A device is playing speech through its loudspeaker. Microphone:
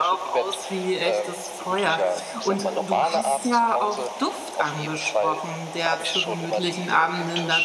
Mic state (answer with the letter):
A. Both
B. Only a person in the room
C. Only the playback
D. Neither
A